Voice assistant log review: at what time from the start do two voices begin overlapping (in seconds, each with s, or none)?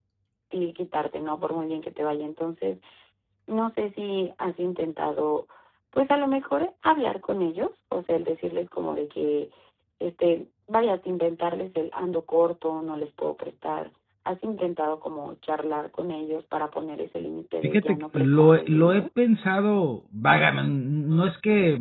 17.6 s